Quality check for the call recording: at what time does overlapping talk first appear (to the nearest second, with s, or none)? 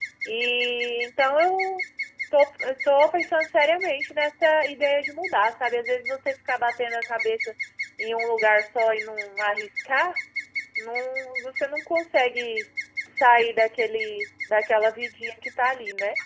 none